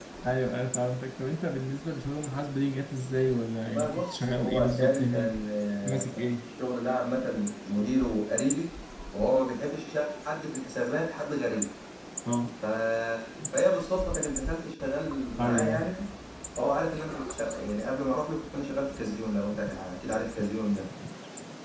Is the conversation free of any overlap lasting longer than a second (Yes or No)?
No